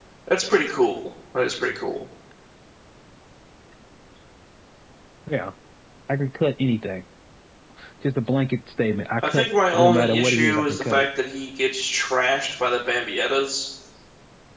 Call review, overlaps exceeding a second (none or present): present